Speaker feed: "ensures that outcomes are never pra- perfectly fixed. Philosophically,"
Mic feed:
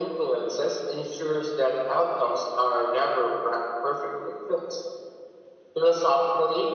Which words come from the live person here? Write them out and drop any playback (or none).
none